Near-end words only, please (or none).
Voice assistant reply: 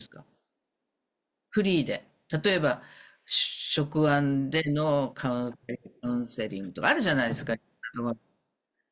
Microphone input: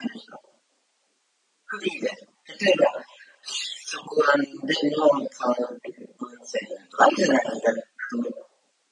none